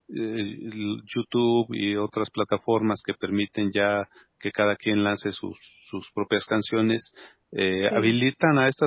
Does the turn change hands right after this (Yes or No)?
No